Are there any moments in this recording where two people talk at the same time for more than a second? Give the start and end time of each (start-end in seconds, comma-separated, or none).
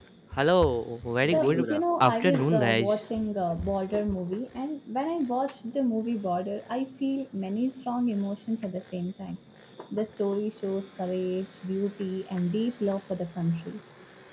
1.2-3.0